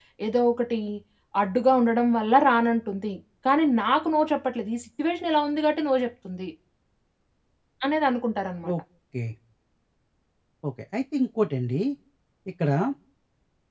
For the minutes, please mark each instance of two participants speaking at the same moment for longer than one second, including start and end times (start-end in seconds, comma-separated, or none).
none